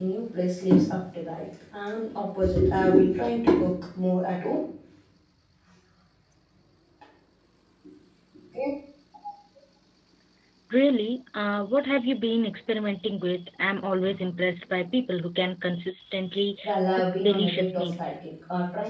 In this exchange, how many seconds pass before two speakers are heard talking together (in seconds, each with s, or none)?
16.6 s